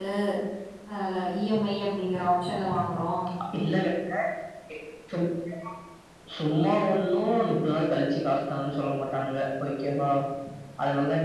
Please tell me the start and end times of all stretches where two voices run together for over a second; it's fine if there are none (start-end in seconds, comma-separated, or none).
none